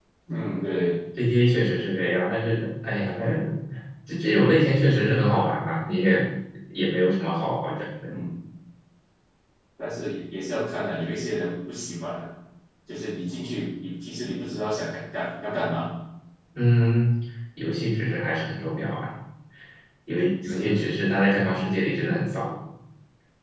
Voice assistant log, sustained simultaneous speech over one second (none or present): none